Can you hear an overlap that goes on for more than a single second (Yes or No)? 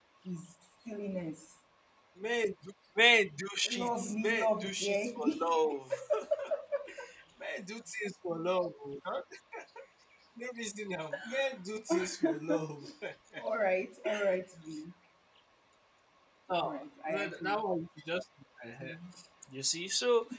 Yes